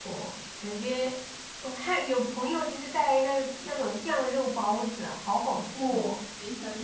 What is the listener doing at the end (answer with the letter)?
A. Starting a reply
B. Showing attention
A